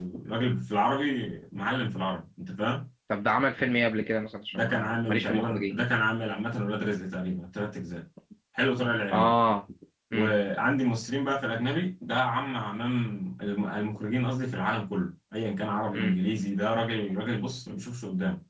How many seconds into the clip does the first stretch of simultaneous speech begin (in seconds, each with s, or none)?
4.5 s